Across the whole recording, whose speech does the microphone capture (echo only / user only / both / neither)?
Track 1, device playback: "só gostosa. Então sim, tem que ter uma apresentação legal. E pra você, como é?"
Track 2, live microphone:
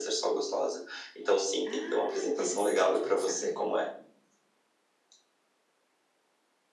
both